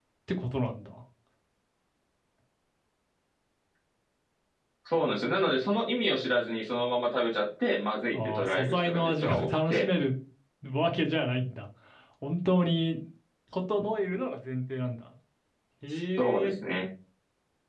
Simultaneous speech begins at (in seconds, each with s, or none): 8.1 s